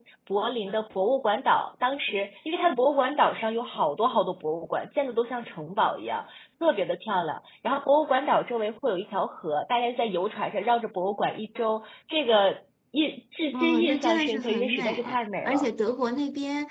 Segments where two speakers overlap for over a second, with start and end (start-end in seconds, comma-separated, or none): 13.5-15.0